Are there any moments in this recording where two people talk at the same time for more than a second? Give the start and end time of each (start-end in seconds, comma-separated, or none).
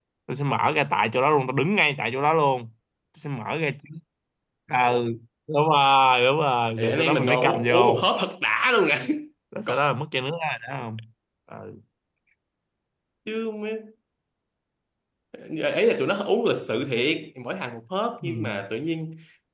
6.8-8.1